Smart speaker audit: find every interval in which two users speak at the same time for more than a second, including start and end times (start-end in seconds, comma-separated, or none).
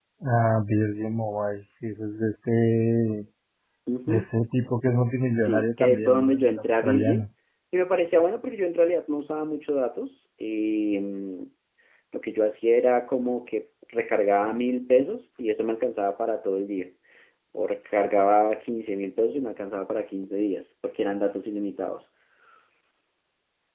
5.4-7.2